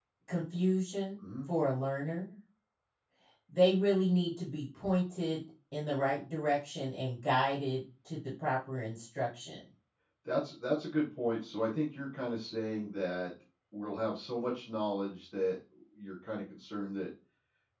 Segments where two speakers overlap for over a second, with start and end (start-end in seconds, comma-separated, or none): none